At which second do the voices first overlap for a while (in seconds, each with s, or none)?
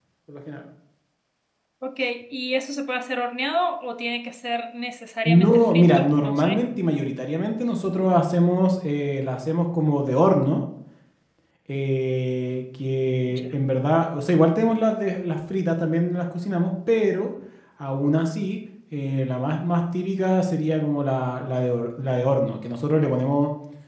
5.2 s